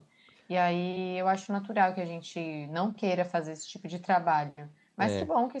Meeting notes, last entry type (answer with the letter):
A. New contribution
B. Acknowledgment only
B